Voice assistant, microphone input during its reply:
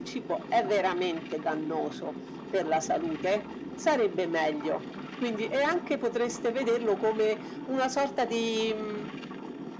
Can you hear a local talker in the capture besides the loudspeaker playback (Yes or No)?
No